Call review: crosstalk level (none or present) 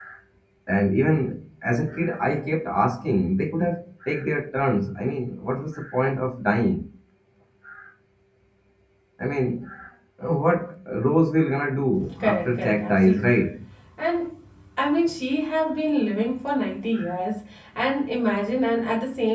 present